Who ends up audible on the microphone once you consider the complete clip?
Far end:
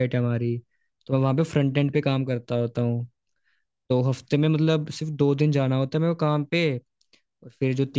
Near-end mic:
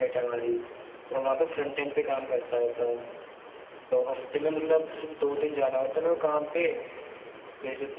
echo only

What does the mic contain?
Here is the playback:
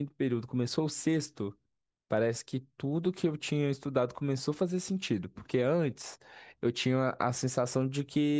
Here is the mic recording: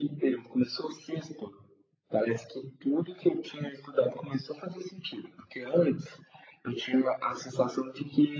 echo only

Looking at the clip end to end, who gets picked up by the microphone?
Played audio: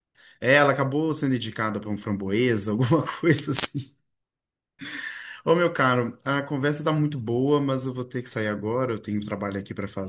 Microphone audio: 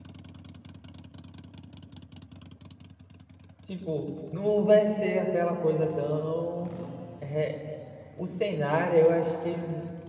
user only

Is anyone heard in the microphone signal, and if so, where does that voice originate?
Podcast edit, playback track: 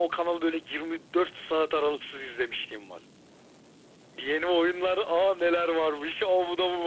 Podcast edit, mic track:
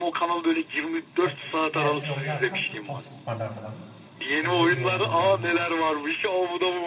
both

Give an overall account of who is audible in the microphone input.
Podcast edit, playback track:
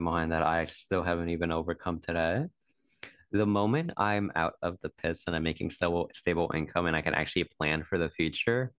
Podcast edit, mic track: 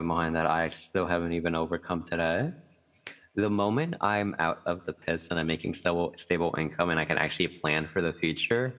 echo only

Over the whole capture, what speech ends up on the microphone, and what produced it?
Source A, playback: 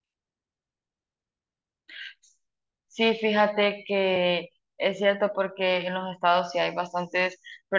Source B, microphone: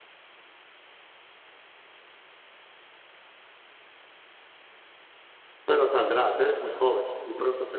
user only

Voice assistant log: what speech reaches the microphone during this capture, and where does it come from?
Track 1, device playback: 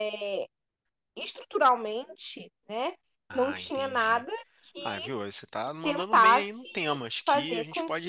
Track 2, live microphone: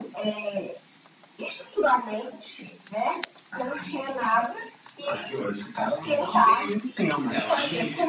both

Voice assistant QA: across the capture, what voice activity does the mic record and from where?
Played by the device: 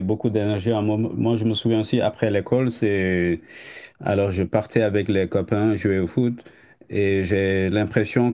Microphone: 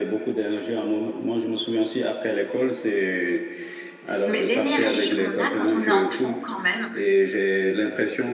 both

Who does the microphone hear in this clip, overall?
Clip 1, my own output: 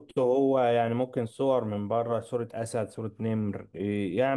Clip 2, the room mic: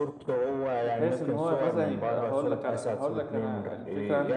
both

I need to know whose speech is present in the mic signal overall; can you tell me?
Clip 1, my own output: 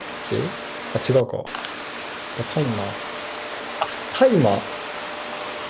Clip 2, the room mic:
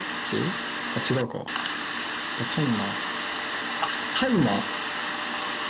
echo only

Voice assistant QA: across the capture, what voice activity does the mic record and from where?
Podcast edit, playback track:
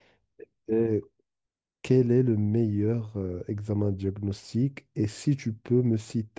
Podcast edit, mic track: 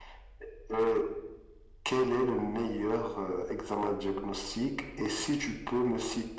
echo only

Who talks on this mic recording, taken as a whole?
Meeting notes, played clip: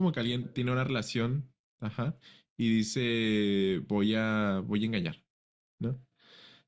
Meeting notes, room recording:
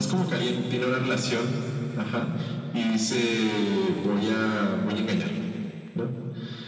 echo only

